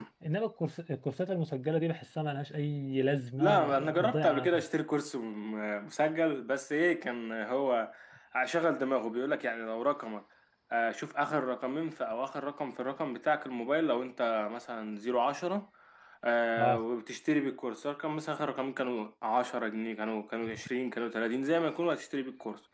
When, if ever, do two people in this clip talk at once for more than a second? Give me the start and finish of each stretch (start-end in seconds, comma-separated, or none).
3.4-4.6